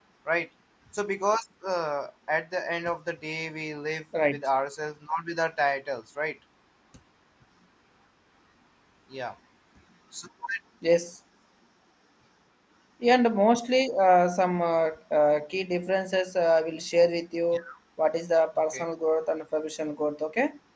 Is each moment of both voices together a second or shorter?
Yes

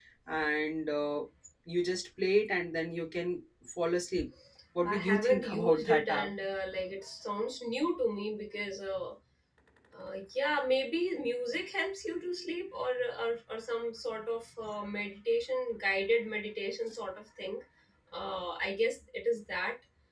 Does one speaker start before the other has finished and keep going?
Yes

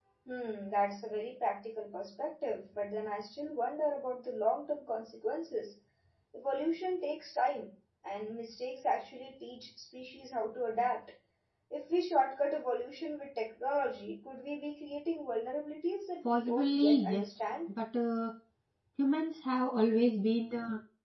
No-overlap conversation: No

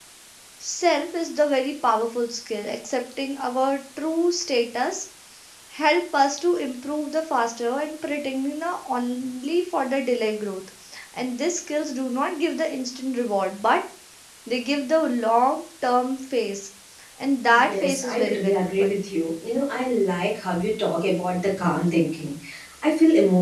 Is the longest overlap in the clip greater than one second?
Yes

